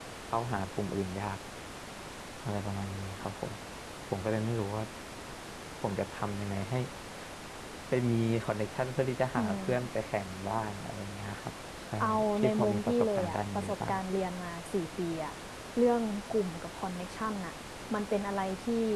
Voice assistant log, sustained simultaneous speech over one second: present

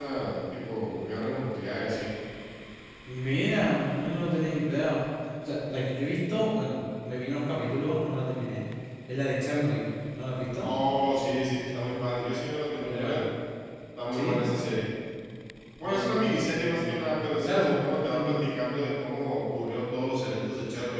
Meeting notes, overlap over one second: present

